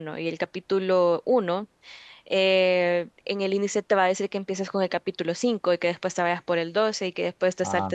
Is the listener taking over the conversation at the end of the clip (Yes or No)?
No